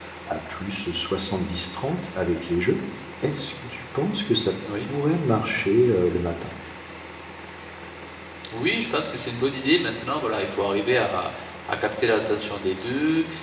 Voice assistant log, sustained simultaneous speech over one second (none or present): none